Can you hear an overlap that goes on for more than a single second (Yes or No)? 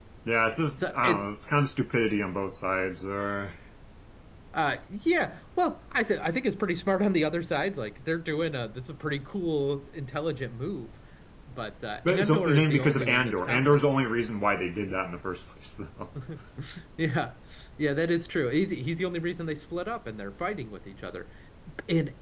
Yes